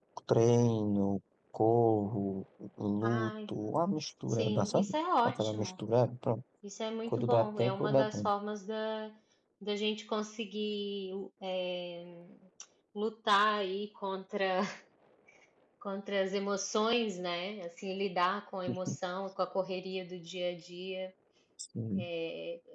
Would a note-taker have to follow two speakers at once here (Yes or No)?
Yes